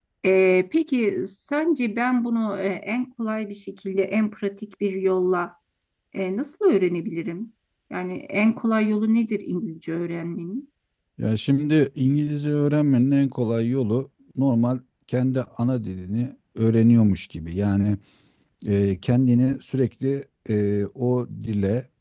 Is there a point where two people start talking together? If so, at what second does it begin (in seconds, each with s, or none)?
none